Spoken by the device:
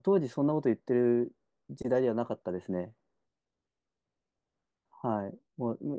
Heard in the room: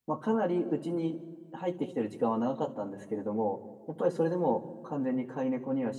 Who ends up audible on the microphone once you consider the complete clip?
user only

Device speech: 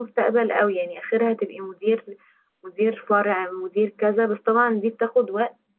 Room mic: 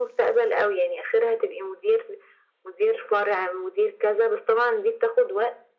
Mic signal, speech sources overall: echo only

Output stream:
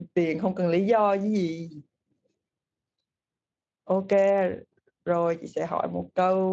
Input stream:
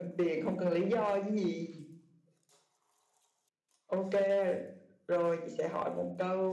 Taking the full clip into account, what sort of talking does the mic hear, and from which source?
echo only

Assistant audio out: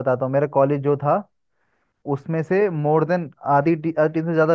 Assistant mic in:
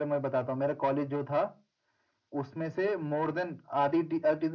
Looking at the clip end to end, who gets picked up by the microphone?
echo only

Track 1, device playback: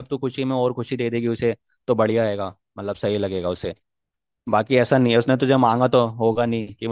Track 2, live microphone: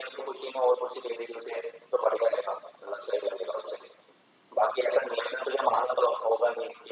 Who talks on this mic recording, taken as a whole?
echo only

